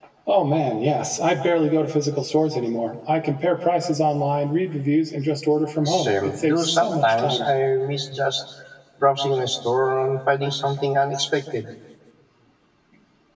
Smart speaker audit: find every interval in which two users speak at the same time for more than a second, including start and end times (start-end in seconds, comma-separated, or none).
5.8-7.4